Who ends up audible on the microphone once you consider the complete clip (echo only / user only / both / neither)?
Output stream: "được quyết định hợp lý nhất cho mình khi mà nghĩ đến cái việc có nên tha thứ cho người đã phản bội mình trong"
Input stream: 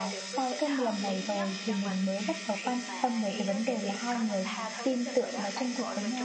both